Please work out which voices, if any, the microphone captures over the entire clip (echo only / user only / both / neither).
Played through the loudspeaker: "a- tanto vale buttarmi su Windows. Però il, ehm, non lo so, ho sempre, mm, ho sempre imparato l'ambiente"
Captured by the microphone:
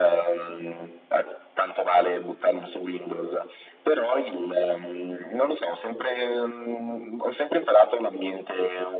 echo only